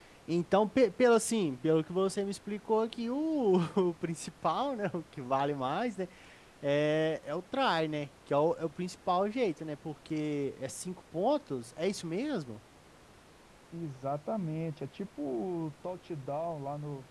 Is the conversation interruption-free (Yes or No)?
Yes